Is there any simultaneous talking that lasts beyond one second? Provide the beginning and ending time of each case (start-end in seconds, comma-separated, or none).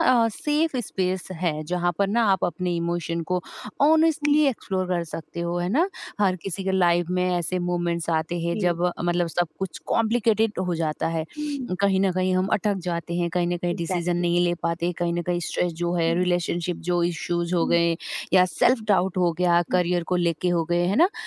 none